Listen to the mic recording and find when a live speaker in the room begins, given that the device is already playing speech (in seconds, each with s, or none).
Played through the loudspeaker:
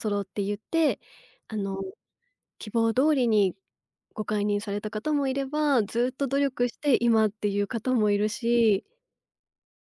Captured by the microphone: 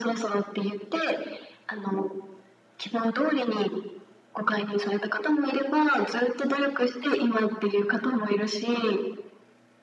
none